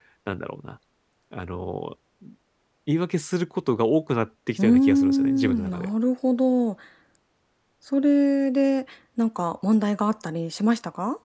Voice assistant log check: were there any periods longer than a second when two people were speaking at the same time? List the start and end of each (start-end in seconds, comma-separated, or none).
4.6-5.9